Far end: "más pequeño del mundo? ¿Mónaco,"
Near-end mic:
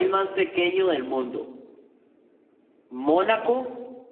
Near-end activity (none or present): none